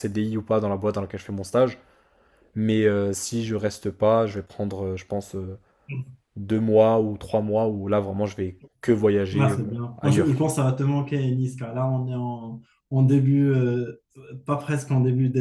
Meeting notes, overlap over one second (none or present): none